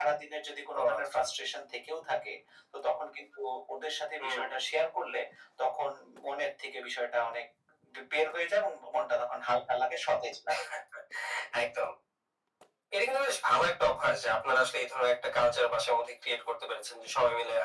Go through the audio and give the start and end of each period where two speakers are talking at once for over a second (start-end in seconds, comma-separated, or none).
none